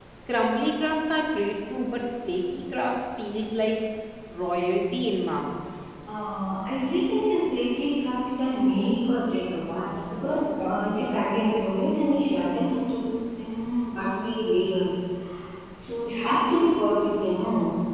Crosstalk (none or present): none